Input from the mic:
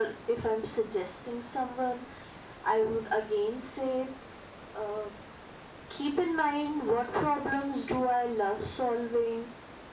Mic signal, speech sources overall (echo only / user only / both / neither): echo only